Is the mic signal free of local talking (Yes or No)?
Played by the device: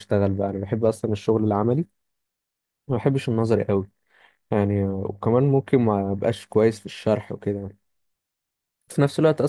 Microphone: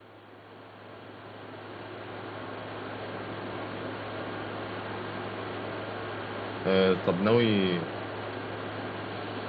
No